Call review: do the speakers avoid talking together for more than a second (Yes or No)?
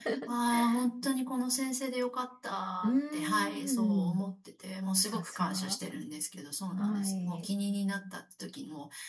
No